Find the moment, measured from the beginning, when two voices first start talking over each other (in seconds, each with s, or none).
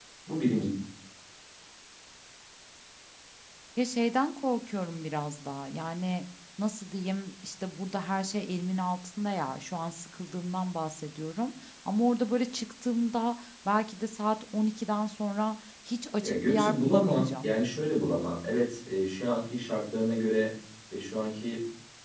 16.2 s